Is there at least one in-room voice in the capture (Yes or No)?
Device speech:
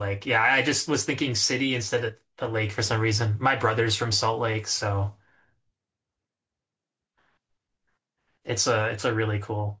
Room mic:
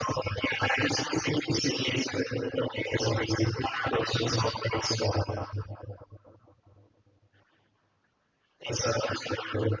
No